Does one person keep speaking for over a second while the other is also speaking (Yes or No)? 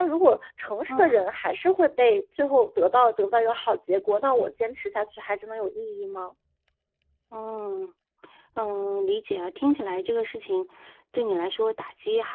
No